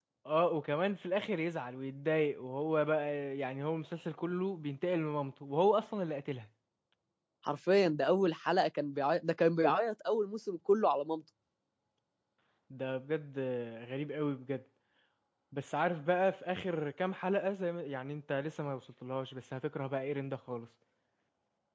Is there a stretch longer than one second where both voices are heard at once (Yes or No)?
No